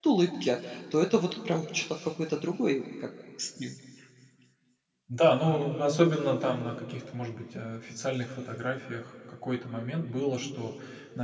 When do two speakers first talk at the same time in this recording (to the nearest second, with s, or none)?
none